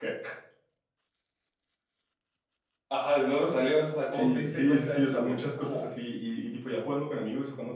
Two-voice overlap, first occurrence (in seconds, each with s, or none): 4.1 s